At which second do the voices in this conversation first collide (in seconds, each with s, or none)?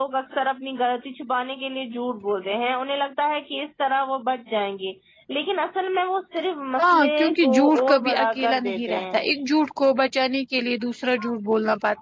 6.7 s